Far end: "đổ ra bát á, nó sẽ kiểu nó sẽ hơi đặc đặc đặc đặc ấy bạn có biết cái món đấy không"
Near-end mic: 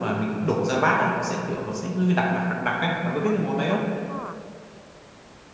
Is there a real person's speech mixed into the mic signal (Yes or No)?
Yes